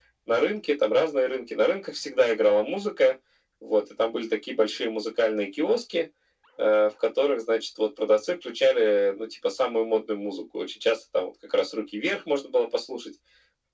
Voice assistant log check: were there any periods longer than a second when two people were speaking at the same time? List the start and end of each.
none

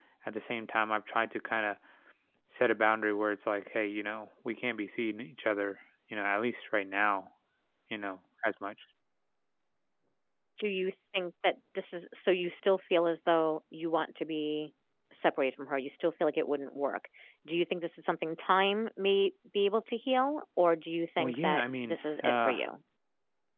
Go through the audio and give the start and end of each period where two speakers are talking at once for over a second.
21.2-22.6

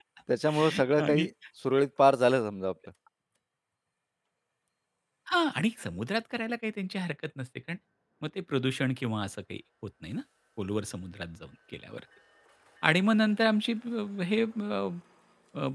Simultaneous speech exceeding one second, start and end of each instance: none

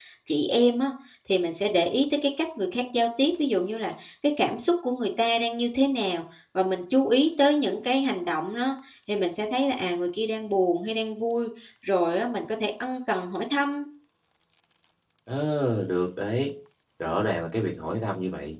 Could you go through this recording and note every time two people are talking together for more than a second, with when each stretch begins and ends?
none

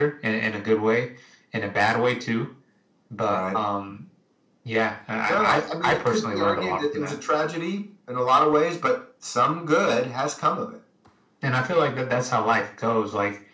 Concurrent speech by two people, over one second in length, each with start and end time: 5.3-7.2

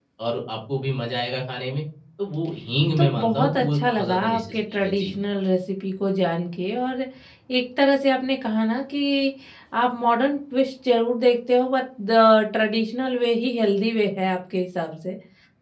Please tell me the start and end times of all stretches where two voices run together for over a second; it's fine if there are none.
3.0-5.1

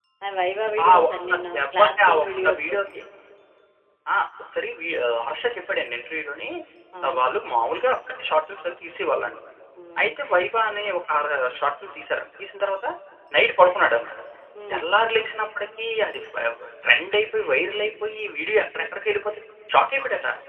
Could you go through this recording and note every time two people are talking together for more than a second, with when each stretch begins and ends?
0.9-2.6

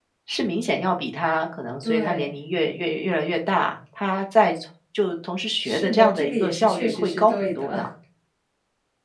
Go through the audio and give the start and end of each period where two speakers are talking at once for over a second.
5.6-7.9

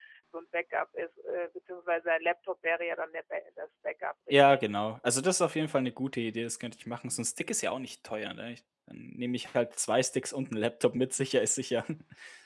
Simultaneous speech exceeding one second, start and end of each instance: none

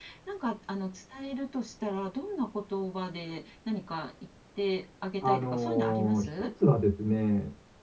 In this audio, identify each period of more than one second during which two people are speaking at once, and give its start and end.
5.2-6.5

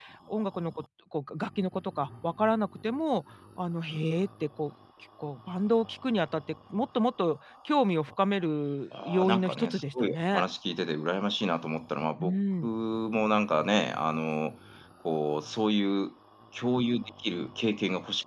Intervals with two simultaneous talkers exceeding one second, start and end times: 9.0-10.4

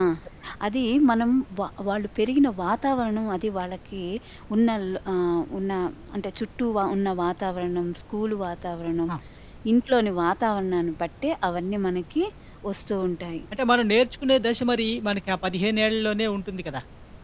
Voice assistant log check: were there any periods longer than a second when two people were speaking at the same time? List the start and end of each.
none

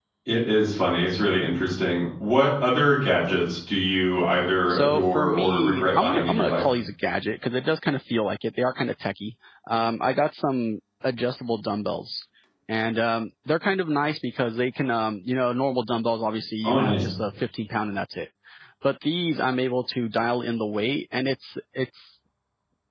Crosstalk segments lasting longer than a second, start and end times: 4.7-6.6

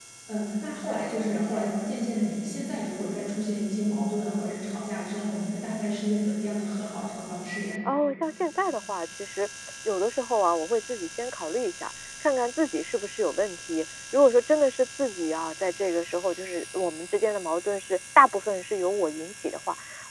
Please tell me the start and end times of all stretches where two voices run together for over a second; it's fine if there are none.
none

